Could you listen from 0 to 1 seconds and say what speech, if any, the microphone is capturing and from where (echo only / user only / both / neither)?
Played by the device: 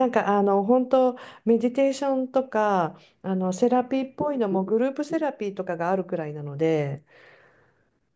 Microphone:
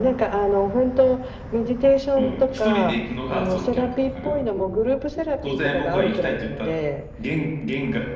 echo only